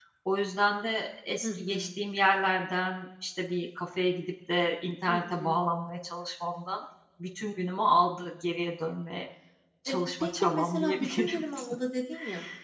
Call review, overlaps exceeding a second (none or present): present